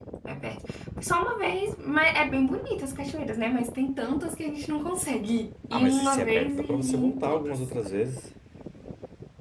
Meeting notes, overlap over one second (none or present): present